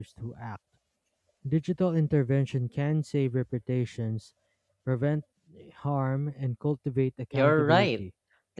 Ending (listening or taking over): taking over